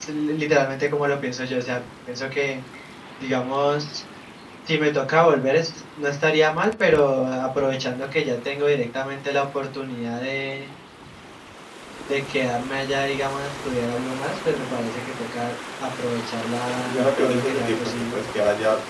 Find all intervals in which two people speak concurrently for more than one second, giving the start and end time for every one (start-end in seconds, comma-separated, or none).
16.9-18.2